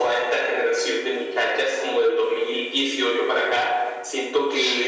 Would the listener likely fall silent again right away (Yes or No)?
Yes